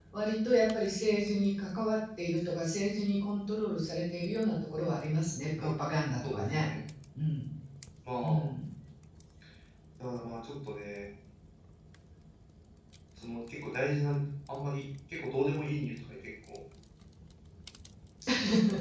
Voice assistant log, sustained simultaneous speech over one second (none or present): none